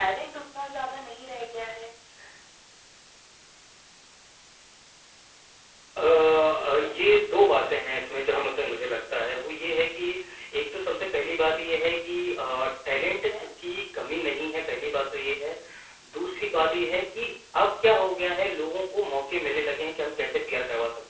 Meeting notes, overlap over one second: none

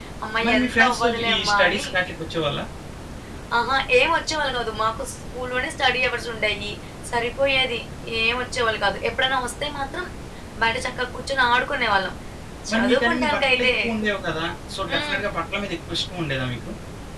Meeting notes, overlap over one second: present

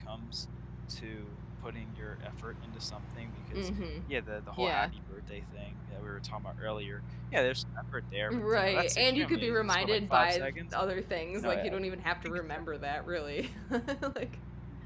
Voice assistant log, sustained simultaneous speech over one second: present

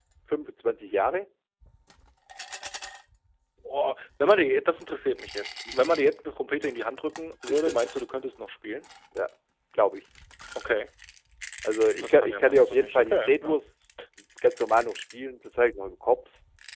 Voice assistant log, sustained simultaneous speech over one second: present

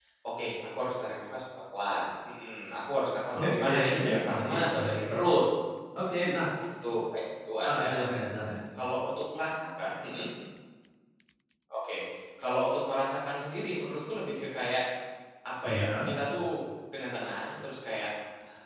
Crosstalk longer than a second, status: present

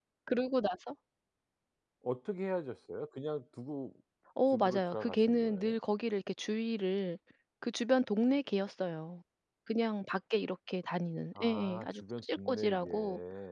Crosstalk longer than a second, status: present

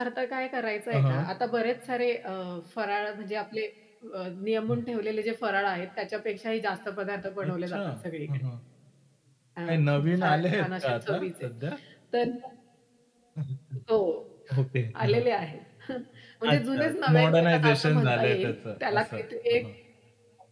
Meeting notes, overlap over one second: present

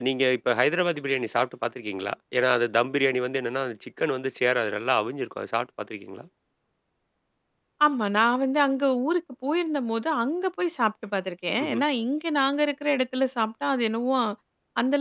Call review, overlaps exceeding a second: none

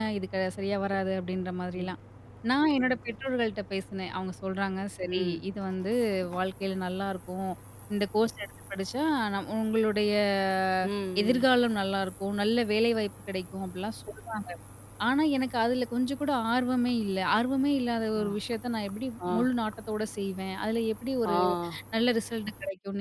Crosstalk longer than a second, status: none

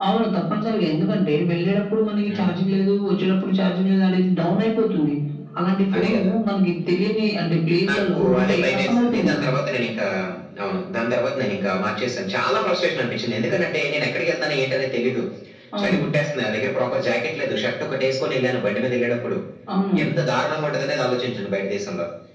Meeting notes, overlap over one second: present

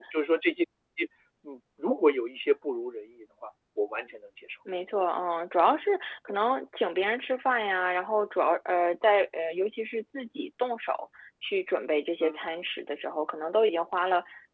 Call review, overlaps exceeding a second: none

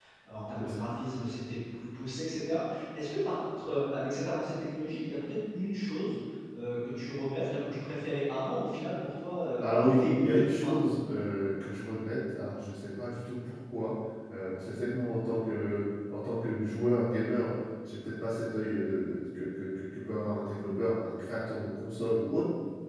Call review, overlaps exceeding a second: present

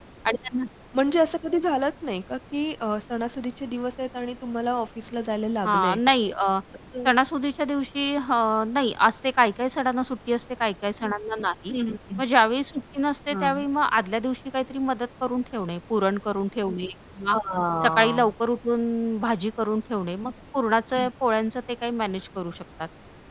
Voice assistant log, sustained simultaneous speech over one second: none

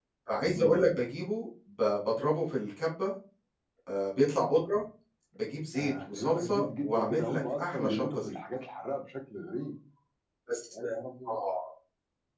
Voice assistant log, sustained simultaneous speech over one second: present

